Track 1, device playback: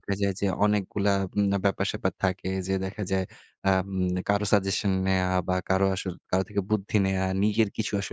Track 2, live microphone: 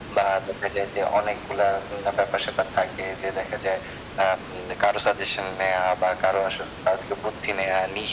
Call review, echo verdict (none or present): present